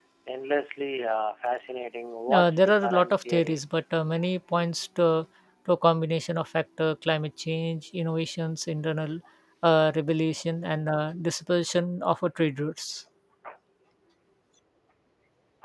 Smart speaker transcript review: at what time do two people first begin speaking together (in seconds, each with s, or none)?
2.3 s